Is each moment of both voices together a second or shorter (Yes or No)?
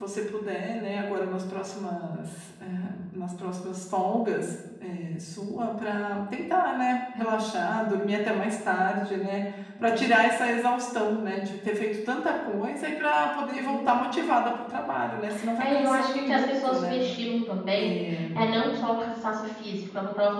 No